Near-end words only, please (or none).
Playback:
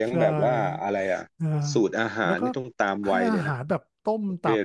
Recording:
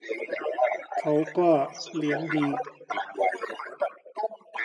เขาก็เลี้ยงดี